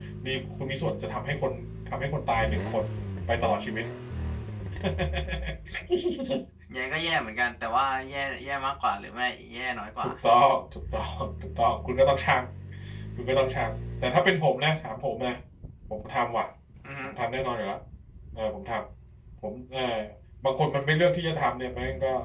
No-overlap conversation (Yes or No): Yes